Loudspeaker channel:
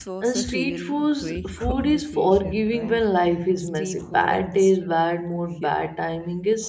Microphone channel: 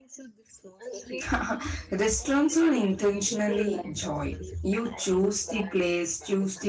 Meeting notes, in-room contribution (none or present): present